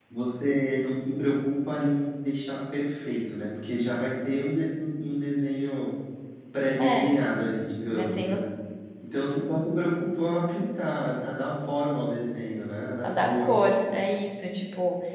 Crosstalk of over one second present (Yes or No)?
No